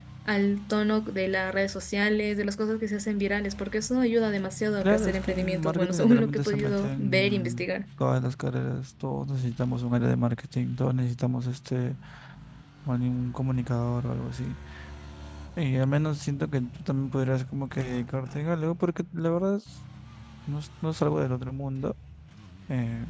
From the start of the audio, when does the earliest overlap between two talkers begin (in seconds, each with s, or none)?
4.8 s